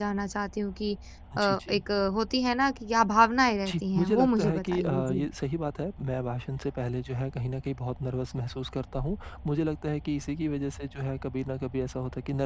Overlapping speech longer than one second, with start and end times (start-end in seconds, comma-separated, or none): 3.7-5.2